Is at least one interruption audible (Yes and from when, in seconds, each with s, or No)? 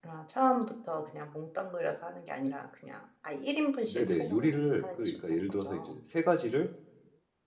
Yes, from 3.9 s